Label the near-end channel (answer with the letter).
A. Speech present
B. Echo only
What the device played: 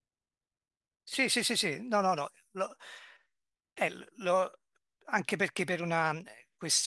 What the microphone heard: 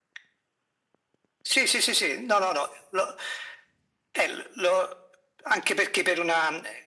B